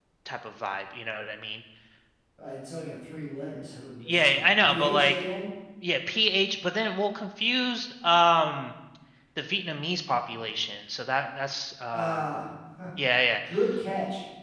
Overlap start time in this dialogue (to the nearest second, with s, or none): 4 s